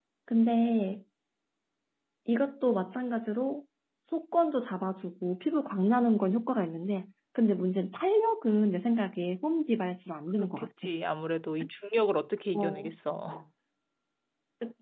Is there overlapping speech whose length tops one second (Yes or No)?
No